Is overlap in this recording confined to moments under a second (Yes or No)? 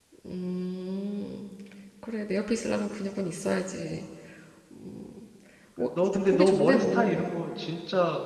No